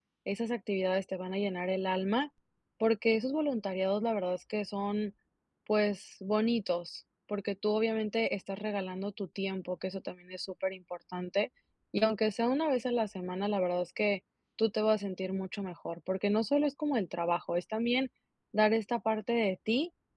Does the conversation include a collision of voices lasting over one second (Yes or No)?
No